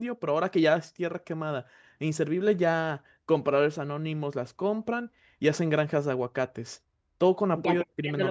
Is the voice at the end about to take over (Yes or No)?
Yes